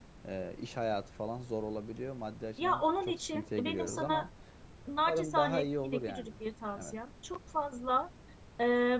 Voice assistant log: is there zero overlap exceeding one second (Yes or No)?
No